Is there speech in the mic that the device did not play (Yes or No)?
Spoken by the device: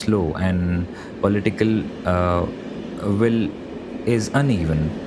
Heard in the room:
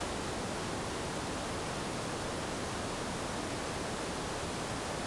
No